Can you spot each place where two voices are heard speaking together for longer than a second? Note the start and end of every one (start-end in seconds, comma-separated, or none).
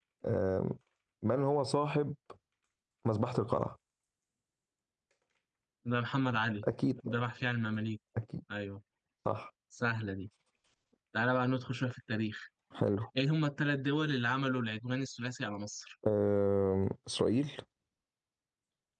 none